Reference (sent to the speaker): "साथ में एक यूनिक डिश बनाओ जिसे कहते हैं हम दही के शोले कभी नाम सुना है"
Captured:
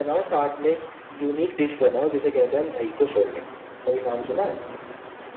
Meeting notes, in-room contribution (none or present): none